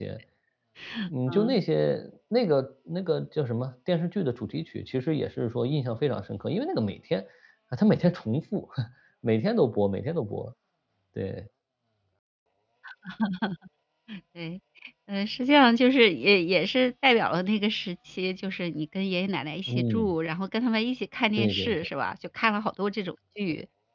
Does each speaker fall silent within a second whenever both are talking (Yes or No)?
Yes